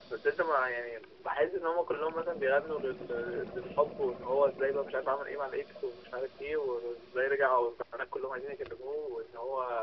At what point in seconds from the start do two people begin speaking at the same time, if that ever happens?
none

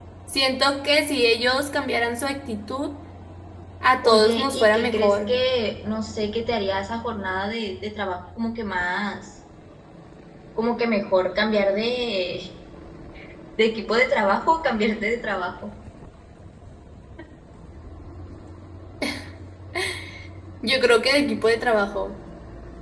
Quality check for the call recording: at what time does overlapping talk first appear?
4.0 s

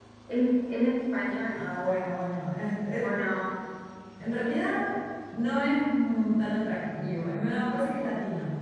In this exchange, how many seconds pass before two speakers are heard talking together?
none

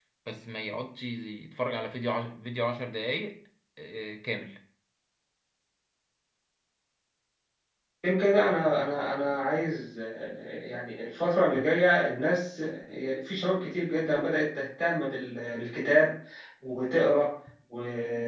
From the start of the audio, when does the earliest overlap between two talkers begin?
none

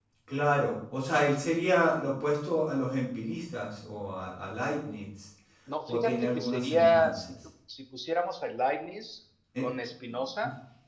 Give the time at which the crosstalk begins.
5.9 s

